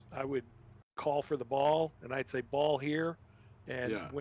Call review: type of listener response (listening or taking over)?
listening